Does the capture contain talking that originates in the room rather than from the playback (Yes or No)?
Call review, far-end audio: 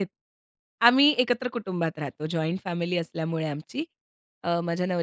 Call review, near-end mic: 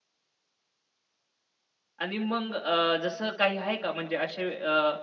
Yes